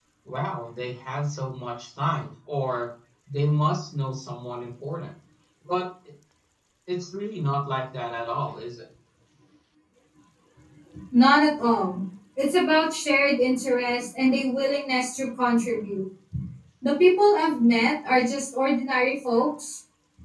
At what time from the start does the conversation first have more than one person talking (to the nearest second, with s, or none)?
none